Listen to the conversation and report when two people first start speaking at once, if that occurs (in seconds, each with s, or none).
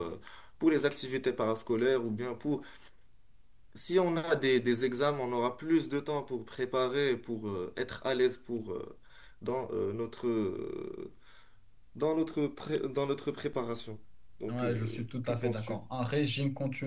14.5 s